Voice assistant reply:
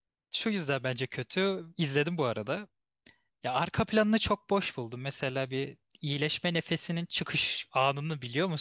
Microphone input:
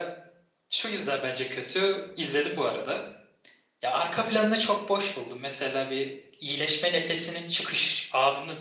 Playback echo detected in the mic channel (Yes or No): Yes